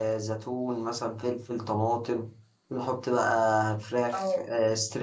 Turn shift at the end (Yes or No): No